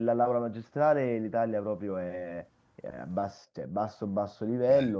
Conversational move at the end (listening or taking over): listening